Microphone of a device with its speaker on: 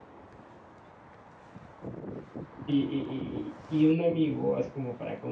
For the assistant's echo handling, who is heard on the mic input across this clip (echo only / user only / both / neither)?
user only